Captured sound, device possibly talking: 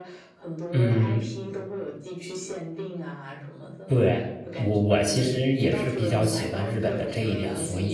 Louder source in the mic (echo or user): user